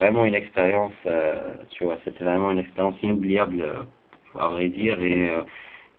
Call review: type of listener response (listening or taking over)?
listening